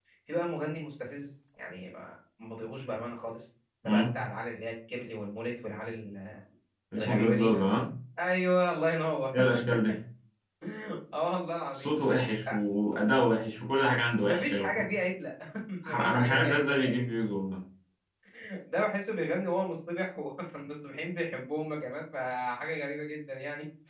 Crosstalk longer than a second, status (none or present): present